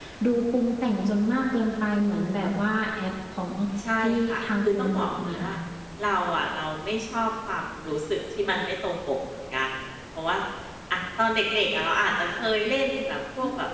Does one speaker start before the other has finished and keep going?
Yes, from 4.0 s

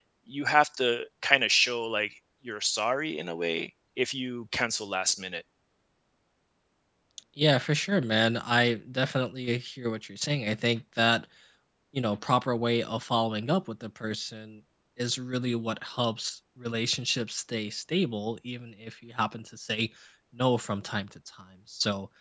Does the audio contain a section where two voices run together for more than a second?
No

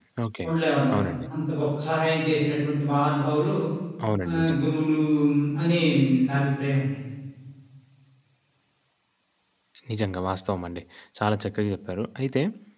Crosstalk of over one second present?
No

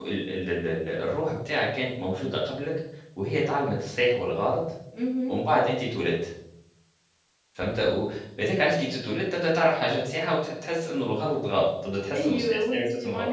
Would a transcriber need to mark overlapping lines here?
Yes, from 12.1 s

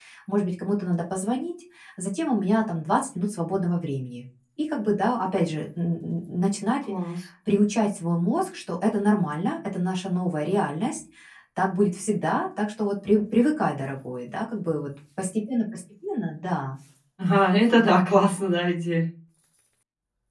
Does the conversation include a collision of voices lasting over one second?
No

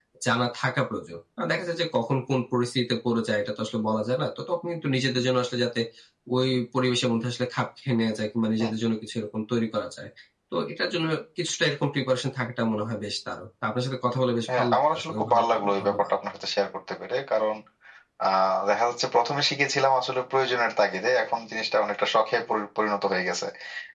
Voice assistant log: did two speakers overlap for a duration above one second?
Yes, from 14.5 s

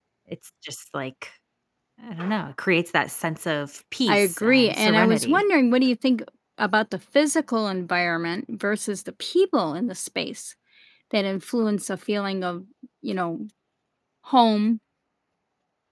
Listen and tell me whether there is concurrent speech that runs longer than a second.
Yes, from 4.1 s

